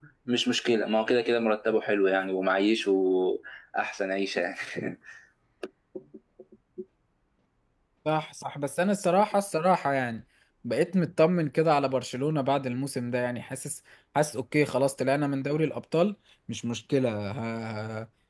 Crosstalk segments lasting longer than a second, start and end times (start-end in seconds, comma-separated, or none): none